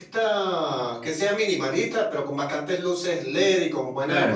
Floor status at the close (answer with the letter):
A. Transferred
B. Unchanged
A